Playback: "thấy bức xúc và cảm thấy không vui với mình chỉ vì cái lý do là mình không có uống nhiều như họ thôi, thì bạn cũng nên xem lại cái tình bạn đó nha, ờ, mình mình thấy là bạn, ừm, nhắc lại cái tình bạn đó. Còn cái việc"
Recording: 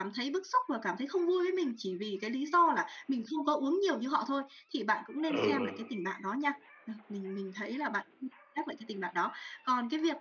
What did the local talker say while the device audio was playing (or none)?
Ừ, ừ.